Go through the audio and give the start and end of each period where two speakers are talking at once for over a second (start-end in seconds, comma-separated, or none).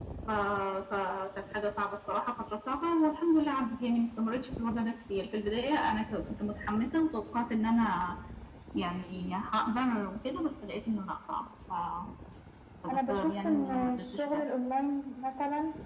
12.9-14.5